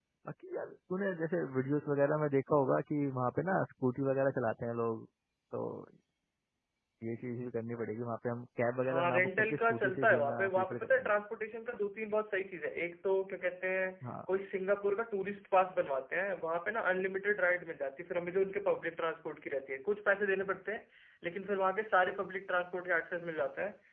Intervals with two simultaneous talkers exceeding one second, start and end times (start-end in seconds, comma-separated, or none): 8.9-11.1